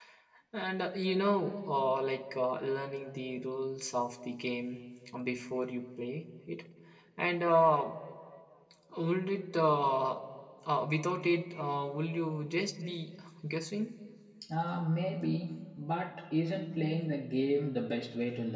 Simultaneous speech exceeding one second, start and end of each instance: none

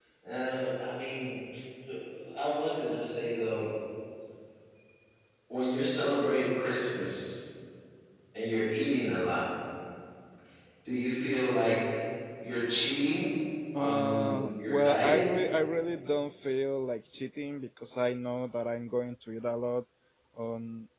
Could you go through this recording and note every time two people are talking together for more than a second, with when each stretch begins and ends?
13.8-15.3

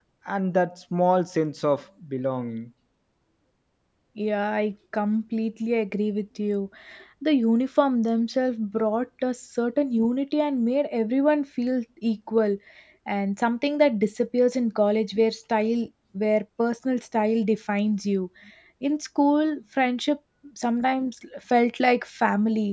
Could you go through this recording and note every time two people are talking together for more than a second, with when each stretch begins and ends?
none

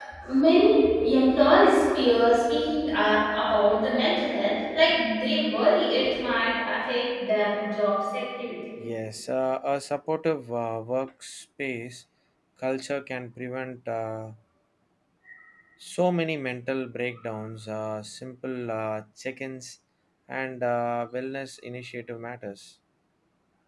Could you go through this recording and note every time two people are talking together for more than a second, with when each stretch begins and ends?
none

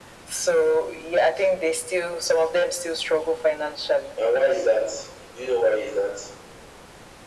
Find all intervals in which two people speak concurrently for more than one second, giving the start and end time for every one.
none

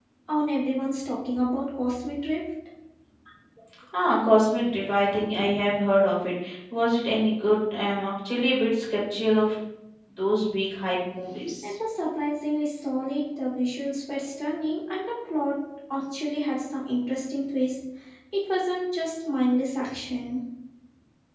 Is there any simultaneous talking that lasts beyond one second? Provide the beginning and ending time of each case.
none

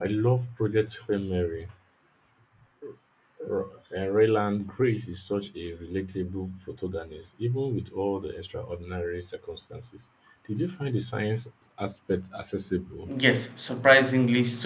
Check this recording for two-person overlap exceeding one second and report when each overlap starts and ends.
none

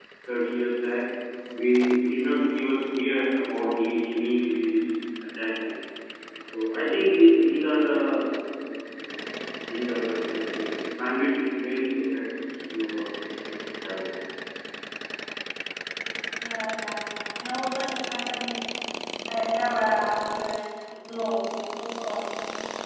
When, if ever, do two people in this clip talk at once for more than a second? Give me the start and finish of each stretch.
none

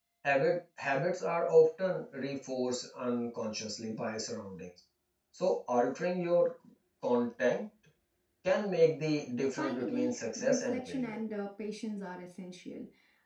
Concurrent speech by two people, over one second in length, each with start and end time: 9.6-11.2

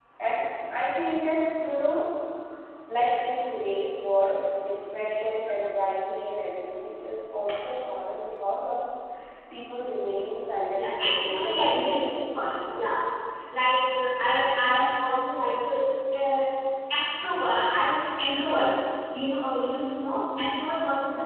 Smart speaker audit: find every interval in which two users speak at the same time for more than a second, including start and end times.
10.8-12.2

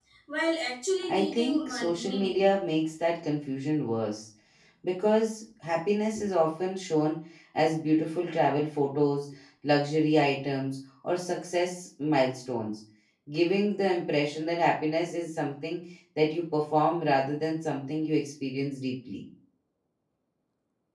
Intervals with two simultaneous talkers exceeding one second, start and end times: 1.1-2.4

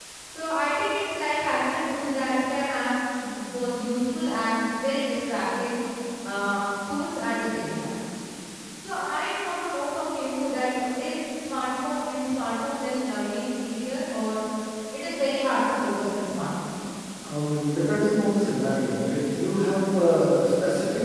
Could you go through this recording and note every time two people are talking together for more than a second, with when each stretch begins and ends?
none

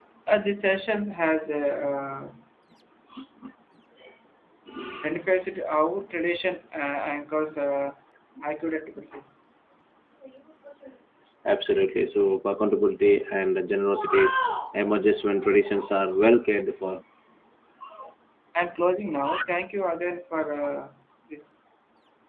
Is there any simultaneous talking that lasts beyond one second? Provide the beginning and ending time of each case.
none

